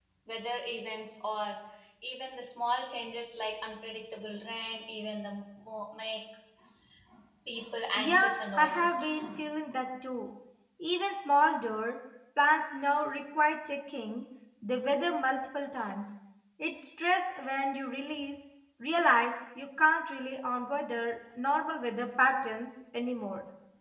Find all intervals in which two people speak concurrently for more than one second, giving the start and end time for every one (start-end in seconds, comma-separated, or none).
8.0-9.3